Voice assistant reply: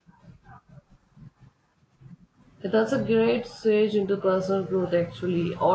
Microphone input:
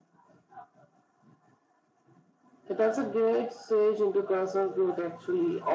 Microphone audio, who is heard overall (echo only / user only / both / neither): echo only